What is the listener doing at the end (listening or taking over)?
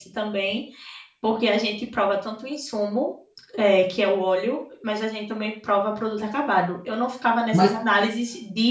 listening